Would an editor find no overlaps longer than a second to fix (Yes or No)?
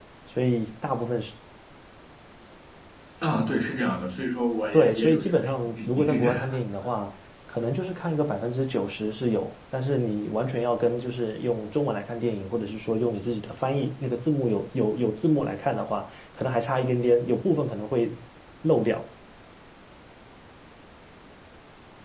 No